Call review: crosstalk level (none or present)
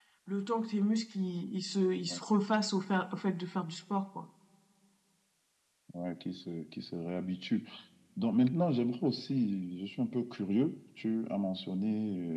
none